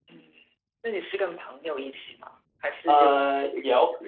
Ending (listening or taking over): taking over